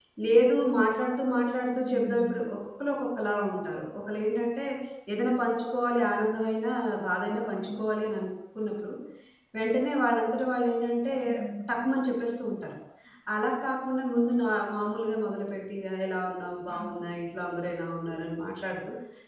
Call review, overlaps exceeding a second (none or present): none